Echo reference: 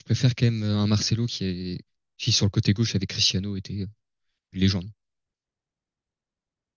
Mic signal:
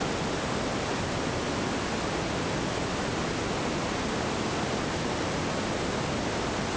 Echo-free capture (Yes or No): Yes